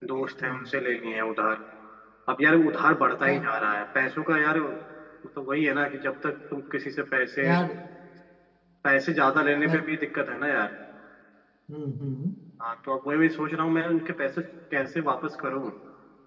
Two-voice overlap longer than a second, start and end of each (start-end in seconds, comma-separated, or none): none